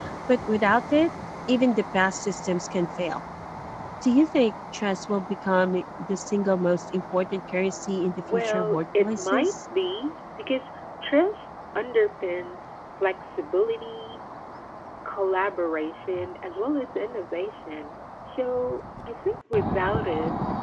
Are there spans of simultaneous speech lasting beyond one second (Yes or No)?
Yes